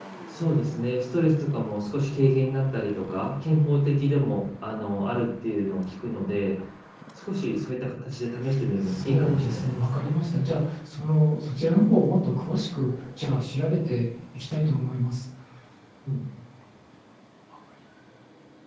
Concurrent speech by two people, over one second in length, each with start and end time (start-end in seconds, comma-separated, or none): 8.8-10.1